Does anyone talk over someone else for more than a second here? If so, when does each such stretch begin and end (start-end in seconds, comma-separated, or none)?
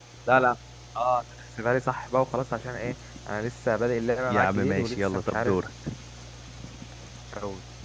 4.3-5.6